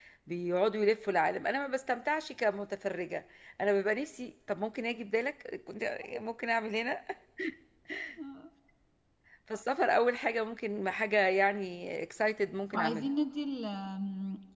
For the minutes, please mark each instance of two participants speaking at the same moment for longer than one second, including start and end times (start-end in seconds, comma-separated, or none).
none